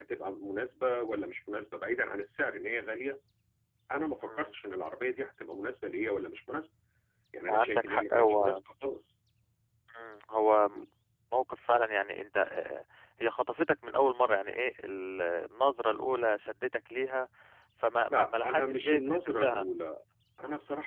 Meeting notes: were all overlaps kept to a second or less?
No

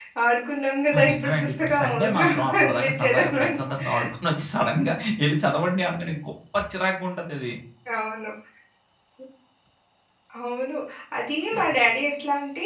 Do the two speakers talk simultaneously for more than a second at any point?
Yes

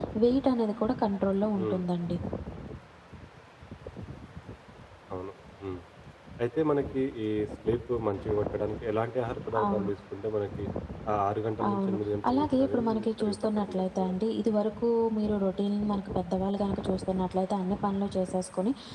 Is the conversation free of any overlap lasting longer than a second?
No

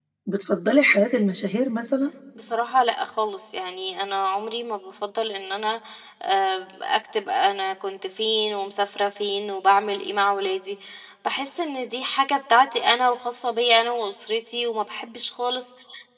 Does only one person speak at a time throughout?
Yes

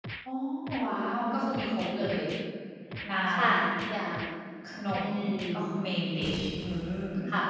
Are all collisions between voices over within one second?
No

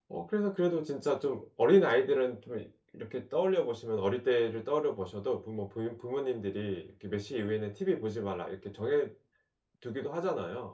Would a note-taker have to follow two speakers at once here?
No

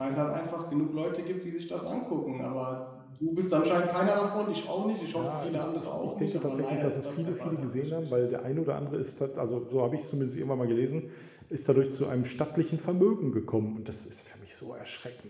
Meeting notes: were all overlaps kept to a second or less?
No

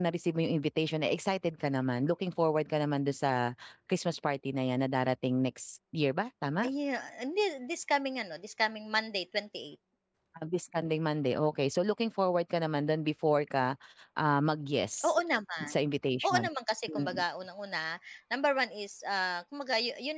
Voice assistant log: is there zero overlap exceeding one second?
Yes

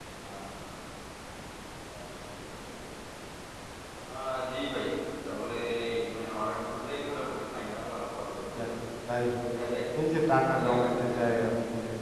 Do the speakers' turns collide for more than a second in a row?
Yes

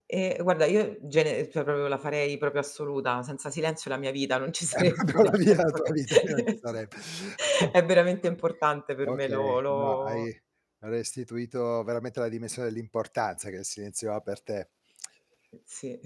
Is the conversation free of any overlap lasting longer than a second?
No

